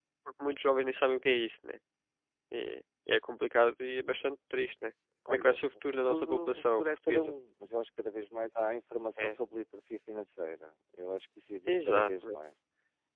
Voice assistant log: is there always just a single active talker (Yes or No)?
No